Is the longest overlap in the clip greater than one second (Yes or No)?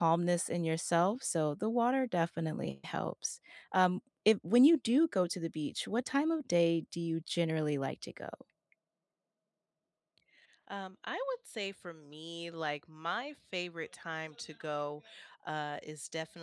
No